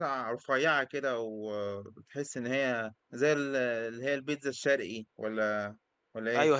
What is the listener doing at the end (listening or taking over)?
taking over